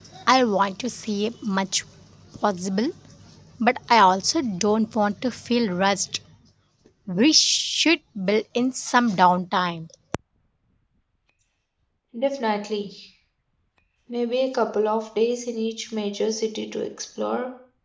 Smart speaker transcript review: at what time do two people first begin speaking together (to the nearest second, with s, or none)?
none